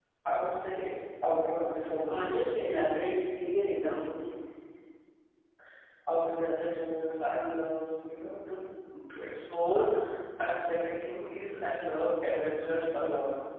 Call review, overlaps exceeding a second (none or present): none